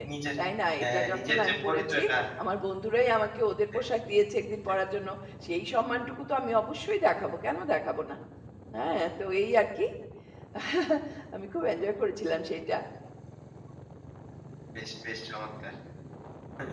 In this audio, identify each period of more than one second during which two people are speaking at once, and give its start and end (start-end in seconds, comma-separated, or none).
0.8-2.0